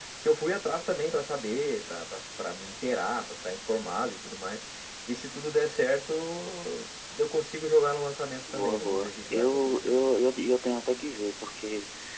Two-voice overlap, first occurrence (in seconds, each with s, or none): 8.5 s